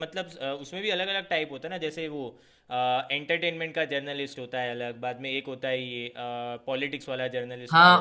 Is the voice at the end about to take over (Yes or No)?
Yes